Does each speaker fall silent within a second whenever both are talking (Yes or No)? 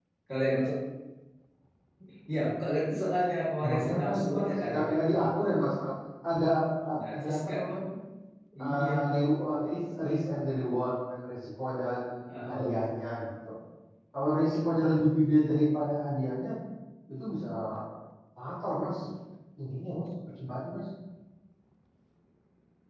No